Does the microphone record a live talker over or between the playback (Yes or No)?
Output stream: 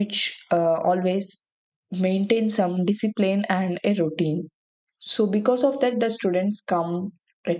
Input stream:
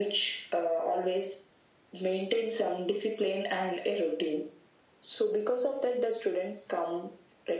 No